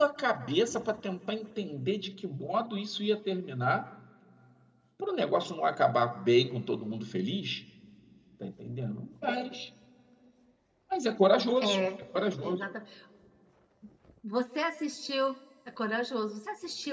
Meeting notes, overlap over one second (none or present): none